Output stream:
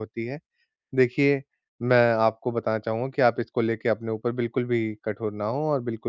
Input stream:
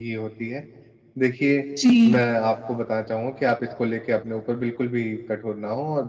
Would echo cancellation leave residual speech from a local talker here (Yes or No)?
Yes